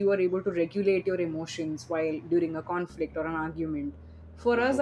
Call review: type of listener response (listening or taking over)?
listening